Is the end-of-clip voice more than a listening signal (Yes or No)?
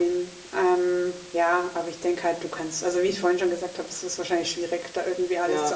No